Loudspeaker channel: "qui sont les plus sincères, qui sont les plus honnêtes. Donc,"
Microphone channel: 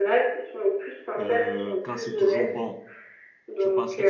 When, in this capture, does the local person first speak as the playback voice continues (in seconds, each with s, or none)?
1.2 s